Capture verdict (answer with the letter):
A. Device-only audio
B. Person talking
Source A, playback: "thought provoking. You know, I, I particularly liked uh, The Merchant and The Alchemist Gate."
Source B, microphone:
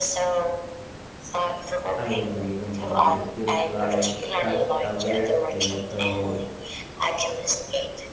B